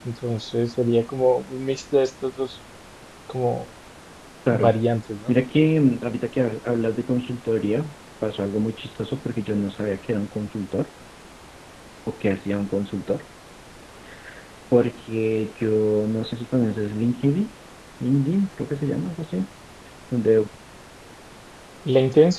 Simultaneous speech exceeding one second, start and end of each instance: none

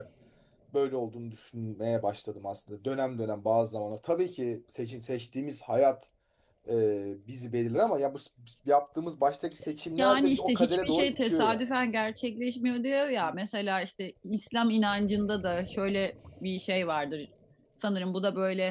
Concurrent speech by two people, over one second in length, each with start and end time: 10.0-11.6

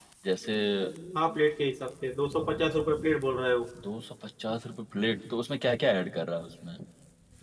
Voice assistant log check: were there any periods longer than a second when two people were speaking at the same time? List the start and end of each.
none

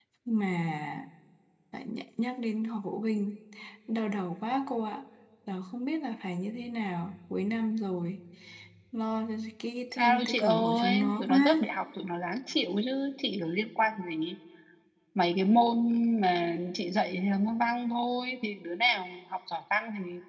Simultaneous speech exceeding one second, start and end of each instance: 9.9-11.5

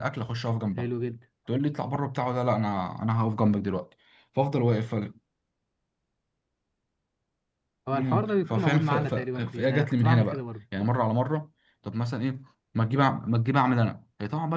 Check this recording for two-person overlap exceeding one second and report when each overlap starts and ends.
7.9-10.4

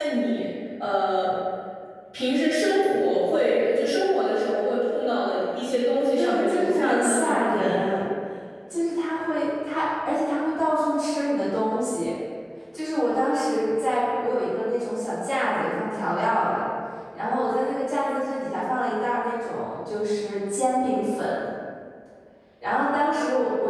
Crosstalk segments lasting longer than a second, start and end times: 6.2-7.8

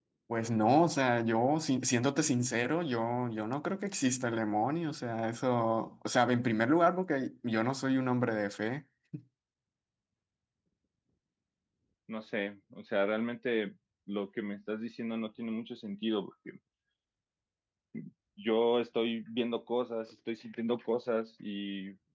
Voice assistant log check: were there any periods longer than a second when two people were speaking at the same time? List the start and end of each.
none

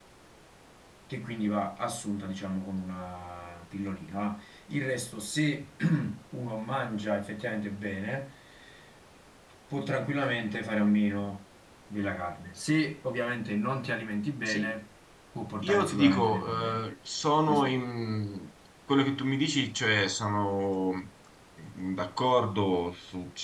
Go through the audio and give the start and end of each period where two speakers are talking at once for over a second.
15.6-16.8

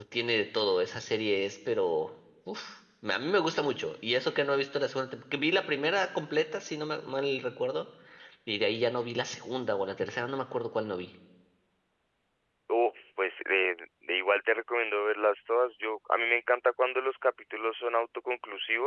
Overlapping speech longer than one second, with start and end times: none

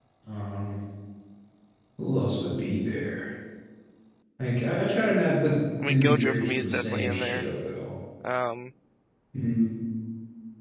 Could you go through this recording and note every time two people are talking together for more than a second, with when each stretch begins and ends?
5.8-7.4

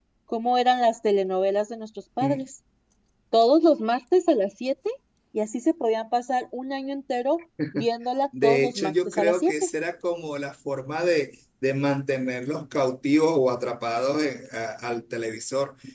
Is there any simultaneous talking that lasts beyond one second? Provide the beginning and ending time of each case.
8.4-9.7

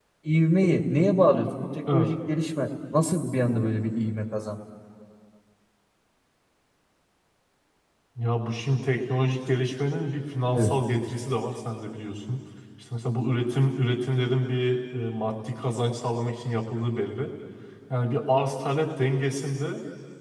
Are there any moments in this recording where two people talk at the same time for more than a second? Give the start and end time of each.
none

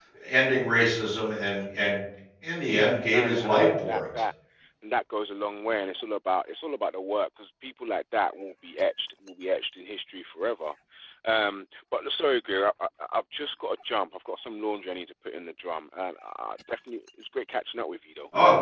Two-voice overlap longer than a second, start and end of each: 2.7-4.0

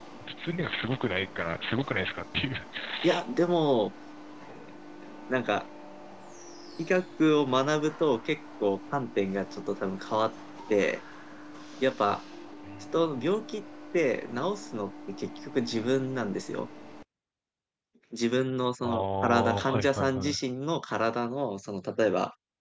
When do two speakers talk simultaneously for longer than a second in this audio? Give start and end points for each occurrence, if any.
18.8-20.3

